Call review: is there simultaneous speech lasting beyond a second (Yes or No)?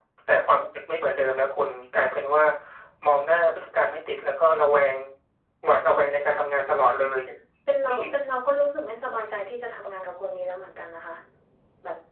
No